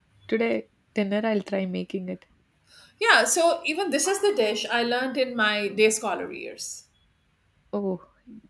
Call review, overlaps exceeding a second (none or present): none